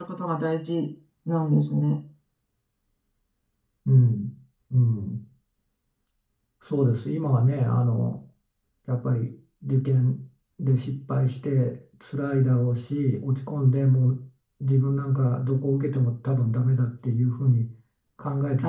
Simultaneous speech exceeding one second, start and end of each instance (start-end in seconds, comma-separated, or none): none